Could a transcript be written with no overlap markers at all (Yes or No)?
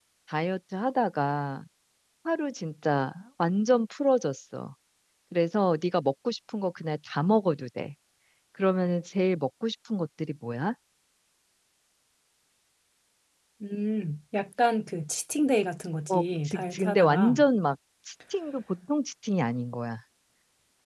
No